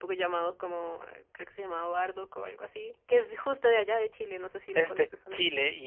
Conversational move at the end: taking over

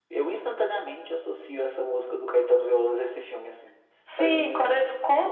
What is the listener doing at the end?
taking over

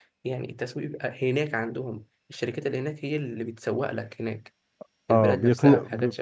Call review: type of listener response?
taking over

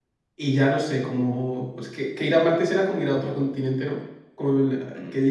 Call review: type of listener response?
listening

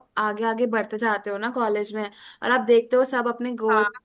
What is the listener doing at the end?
listening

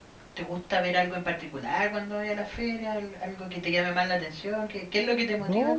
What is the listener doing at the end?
taking over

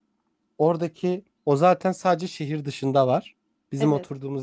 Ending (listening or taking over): listening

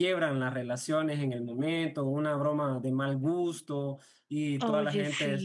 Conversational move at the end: listening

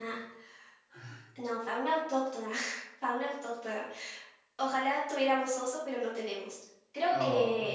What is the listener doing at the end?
listening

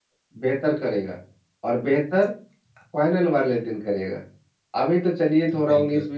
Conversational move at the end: listening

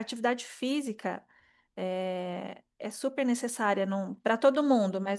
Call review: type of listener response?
listening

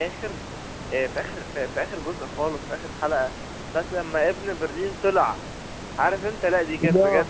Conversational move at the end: listening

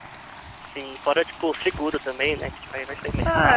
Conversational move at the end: taking over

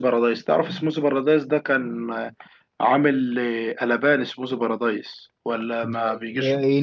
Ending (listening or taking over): taking over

